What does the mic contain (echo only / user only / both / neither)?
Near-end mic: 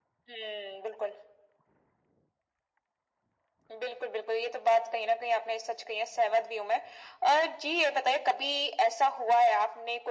echo only